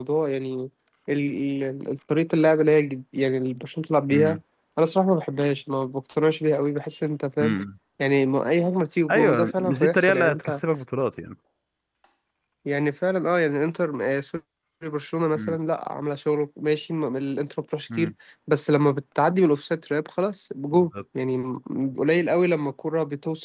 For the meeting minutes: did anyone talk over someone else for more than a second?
Yes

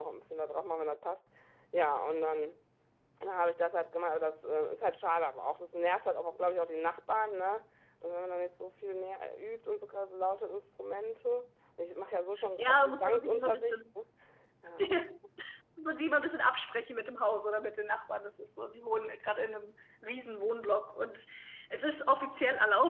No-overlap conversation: No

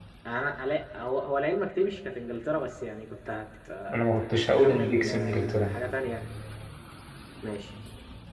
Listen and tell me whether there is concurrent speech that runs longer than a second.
Yes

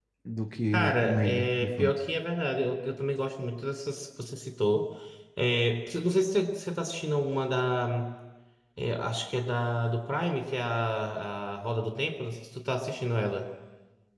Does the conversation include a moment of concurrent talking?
Yes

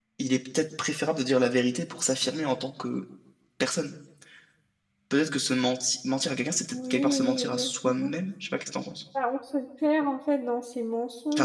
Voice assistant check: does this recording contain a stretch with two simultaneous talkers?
Yes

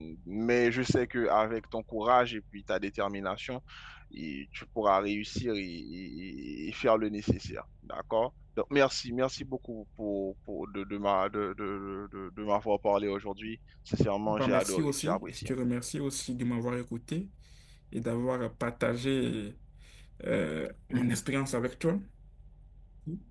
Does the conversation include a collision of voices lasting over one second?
Yes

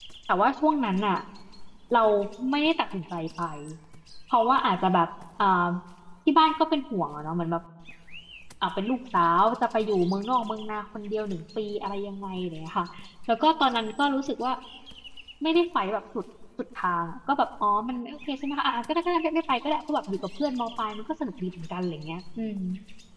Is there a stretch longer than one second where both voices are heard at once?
No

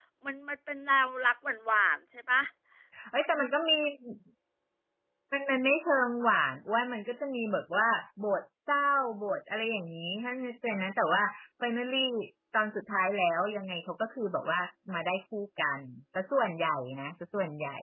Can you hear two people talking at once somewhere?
No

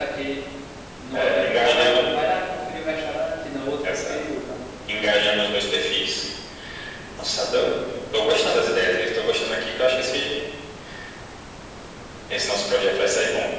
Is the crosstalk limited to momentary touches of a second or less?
No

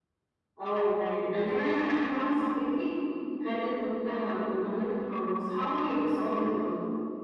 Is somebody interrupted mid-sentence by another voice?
Yes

